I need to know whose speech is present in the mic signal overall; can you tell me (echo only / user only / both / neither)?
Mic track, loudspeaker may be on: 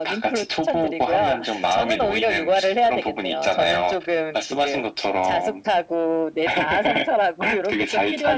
echo only